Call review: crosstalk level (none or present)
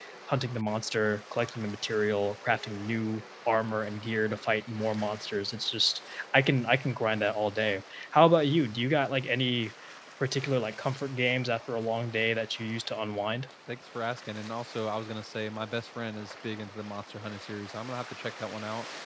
none